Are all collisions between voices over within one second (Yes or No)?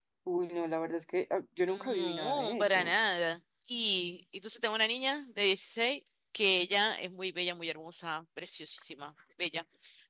No